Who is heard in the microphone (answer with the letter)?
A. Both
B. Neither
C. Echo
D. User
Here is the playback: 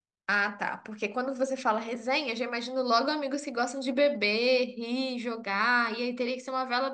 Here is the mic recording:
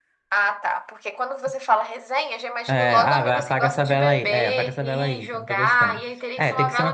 A